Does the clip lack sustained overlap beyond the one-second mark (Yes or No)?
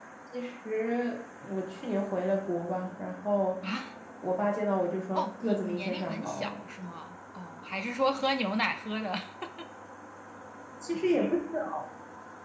No